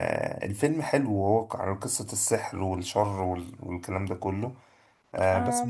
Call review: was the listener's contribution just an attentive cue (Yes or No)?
No